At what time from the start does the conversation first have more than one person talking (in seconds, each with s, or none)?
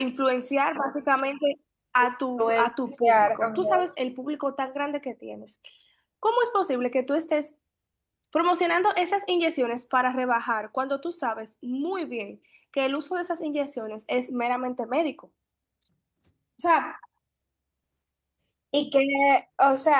2.4 s